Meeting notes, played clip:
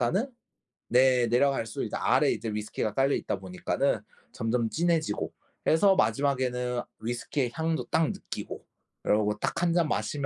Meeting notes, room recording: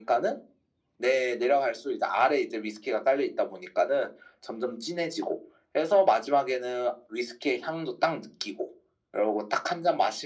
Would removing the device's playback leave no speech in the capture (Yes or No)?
Yes